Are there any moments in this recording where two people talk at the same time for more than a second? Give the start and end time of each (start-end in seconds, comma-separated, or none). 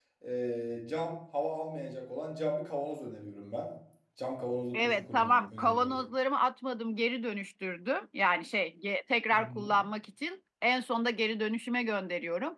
4.7-5.9